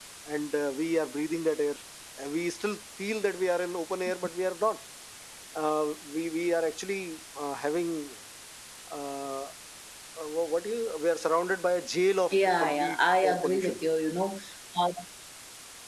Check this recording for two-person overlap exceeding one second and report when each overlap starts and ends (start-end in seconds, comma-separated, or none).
12.3-13.8